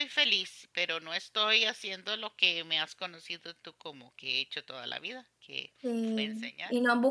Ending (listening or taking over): taking over